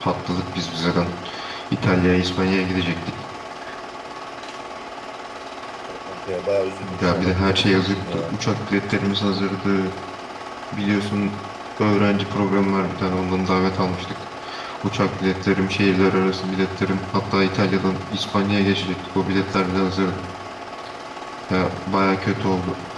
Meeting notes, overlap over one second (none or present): present